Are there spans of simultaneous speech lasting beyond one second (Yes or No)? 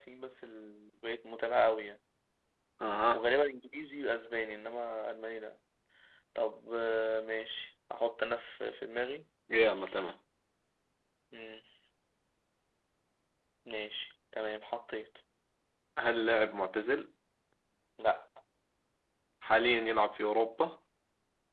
No